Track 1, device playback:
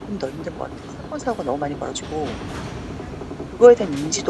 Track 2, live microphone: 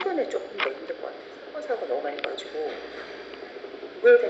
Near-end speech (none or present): none